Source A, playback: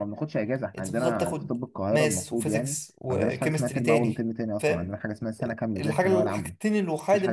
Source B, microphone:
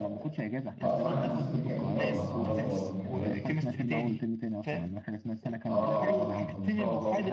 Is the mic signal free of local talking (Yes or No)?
No